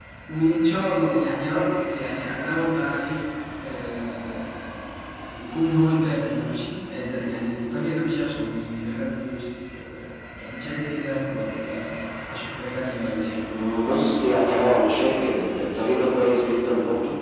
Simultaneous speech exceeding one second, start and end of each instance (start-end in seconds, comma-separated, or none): none